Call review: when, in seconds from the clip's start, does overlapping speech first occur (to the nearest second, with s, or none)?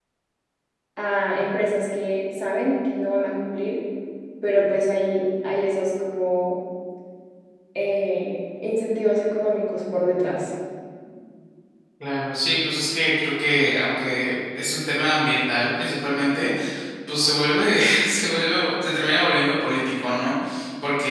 none